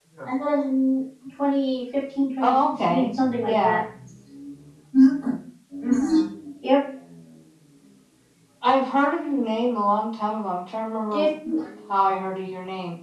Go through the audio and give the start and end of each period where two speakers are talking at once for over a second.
2.4-3.8

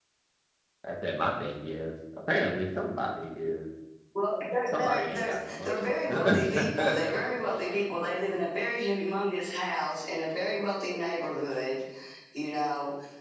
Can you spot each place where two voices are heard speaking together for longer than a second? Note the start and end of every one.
4.8-7.7

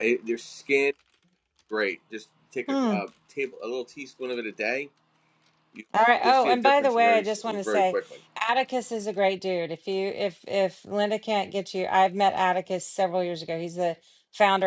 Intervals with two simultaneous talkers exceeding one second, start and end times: 6.2-7.9

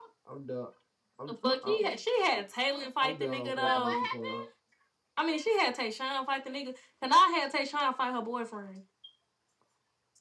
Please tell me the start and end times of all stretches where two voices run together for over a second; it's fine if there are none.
3.0-4.5

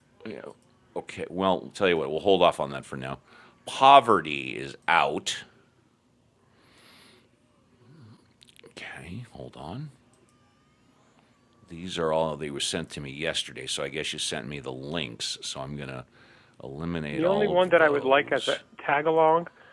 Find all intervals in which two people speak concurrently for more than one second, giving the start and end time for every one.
17.1-18.6

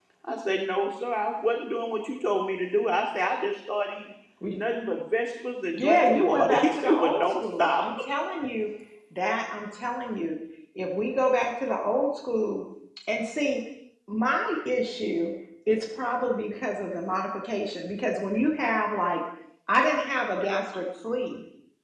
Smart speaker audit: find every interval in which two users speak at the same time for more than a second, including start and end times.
5.8-7.9

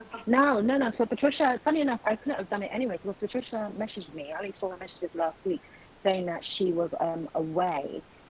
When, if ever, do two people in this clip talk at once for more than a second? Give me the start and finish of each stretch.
none

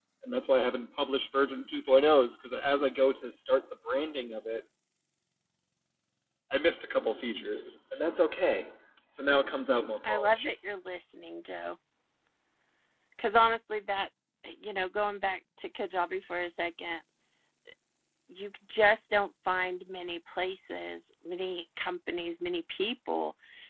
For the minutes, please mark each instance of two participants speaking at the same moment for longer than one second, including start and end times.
none

